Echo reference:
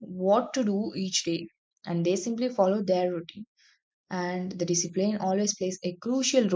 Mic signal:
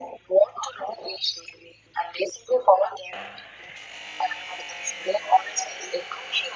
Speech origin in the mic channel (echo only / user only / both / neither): echo only